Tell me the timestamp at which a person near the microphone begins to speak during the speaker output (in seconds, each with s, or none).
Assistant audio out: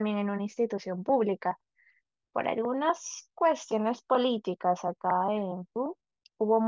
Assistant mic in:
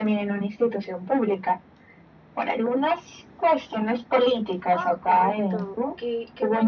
4.7 s